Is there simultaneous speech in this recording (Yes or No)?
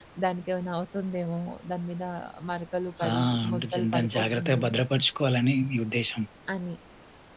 Yes